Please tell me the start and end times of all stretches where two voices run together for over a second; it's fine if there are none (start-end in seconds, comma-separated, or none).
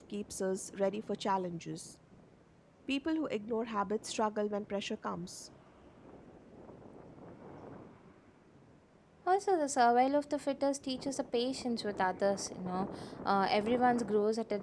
none